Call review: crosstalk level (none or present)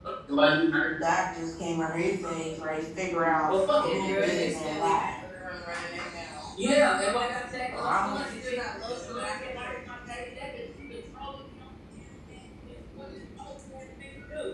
present